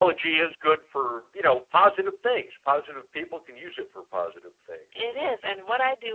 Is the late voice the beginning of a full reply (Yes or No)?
Yes